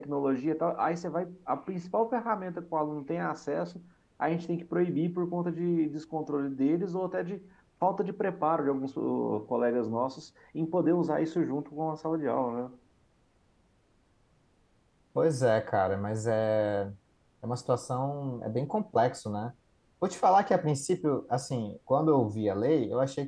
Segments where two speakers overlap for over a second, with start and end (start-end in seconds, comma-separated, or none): none